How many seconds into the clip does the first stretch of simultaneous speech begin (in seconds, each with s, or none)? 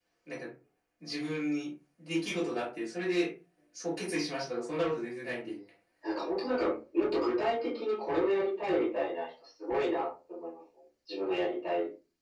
none